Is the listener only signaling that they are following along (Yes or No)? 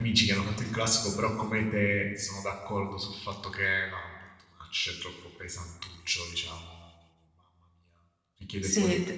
No